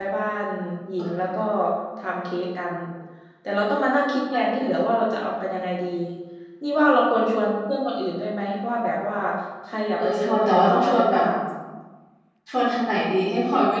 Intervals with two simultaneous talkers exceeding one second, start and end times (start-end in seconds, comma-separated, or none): 10.0-11.2